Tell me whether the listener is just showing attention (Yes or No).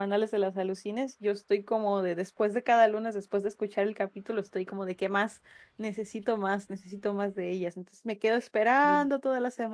Yes